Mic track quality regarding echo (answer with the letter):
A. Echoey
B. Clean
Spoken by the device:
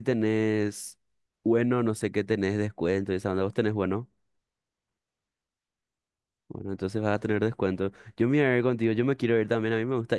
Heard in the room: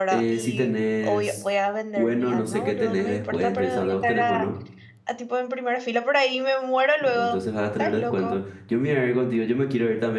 A